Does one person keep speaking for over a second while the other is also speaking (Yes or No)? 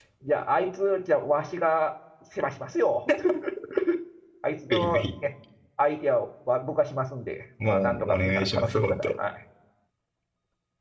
Yes